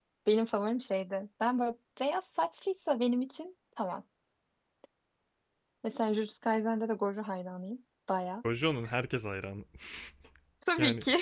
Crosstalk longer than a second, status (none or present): none